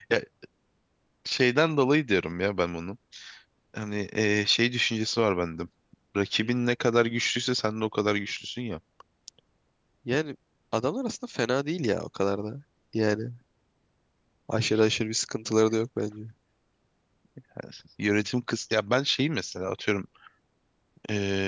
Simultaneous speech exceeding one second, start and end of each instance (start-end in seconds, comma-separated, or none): none